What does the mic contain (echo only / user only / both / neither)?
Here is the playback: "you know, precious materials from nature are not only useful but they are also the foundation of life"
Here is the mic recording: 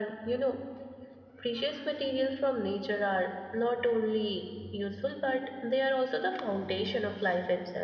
echo only